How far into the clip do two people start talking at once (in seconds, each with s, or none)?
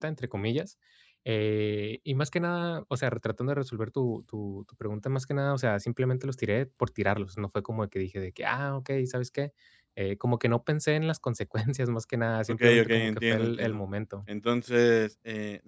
12.5 s